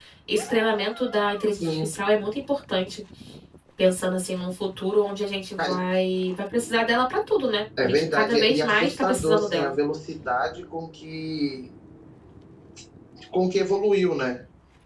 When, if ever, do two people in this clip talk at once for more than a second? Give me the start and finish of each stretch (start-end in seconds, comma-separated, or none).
7.8-9.7